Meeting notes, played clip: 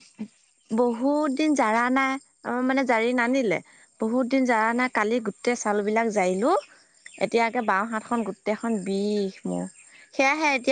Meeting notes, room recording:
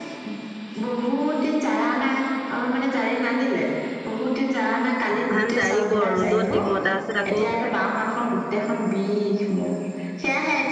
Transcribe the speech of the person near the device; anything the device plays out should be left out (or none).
ধান জাৰিব ৰ'দত দিব তাৰপিছত আকৌ